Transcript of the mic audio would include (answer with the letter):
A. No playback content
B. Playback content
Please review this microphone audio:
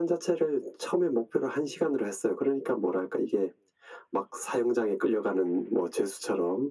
B